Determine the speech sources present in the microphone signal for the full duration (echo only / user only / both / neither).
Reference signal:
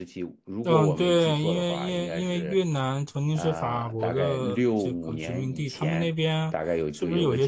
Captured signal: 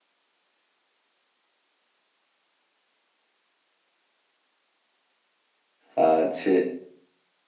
user only